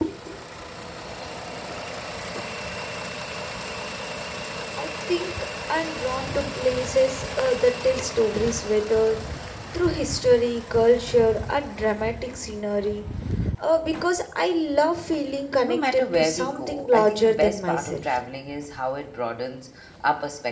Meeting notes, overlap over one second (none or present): present